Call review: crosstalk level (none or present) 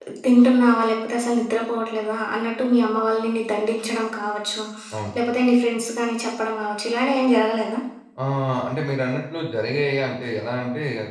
none